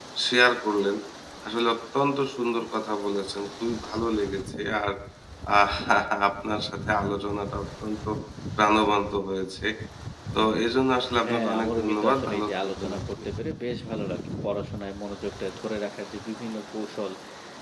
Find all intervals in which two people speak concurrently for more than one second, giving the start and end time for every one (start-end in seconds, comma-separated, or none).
11.2-13.0